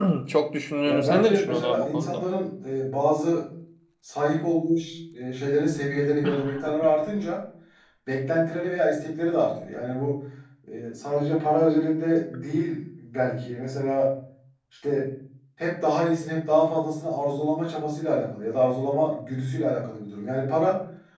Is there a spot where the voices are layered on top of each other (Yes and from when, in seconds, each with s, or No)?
Yes, from 0.9 s